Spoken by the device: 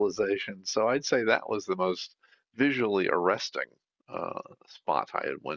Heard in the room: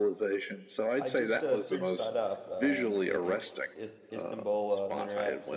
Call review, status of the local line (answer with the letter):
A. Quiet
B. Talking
B